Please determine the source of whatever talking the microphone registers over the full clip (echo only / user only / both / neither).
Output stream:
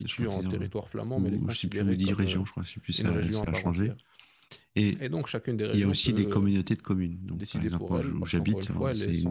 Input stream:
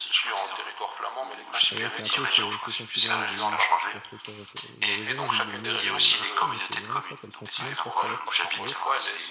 both